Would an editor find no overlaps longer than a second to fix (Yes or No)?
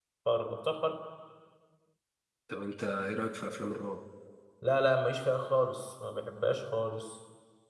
Yes